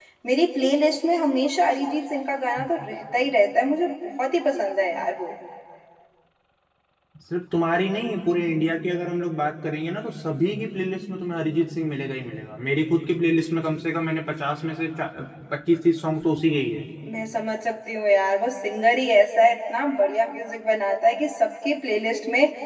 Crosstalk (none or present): none